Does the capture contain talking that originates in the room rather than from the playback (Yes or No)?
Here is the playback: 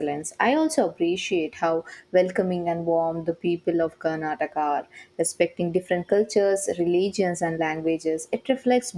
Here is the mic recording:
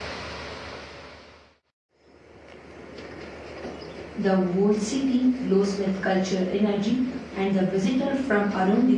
Yes